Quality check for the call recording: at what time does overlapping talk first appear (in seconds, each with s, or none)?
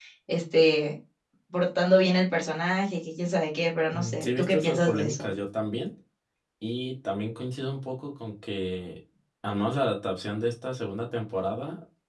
3.9 s